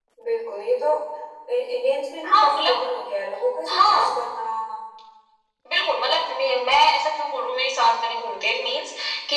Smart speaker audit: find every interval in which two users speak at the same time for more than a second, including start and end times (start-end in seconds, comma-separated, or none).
none